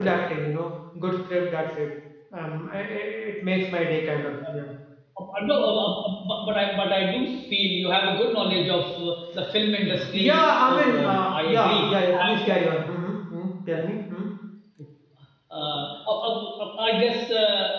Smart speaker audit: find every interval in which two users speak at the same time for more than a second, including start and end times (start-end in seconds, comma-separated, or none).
10.1-12.6